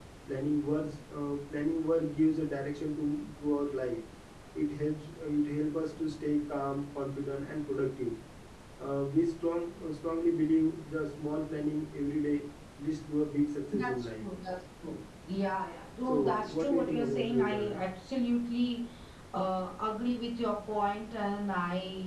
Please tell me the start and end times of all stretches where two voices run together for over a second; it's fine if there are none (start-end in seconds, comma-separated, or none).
16.1-17.8